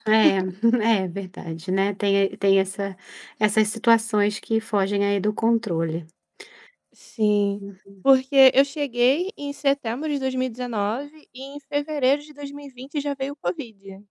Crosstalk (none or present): none